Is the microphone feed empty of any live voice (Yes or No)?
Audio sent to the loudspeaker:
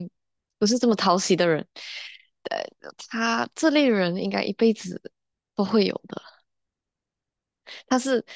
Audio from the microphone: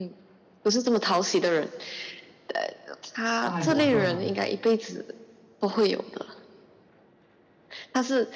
No